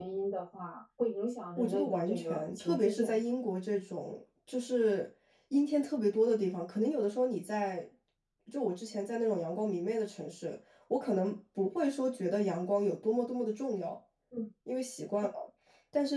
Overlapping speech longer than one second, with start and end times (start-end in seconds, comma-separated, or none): 1.6-3.2